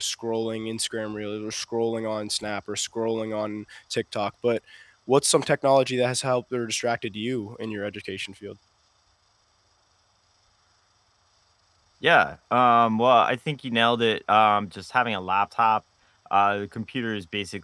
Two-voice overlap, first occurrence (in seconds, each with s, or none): none